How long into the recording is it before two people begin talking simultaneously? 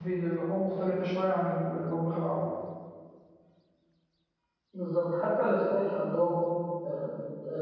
none

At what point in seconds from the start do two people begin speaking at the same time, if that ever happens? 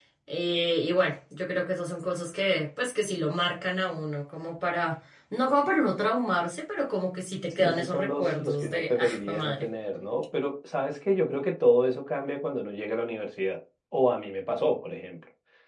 7.6 s

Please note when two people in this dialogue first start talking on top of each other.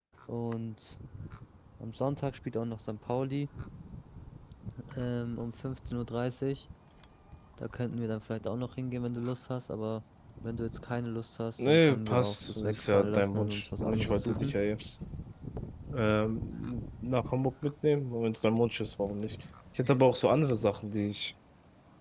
11.6 s

